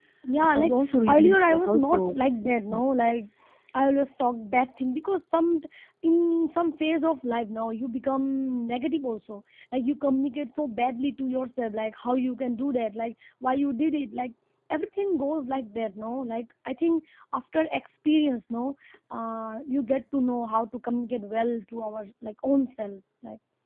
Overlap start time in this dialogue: 0.5 s

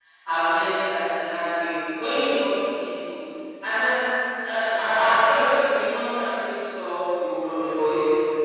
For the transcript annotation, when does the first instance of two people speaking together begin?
none

